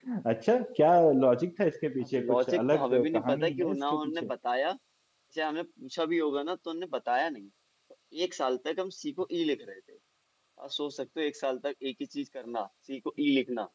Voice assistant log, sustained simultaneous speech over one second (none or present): present